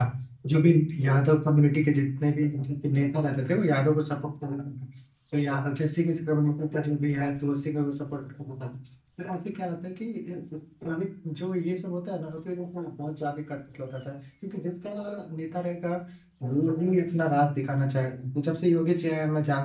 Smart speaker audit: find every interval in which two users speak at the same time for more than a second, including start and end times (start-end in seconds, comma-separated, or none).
none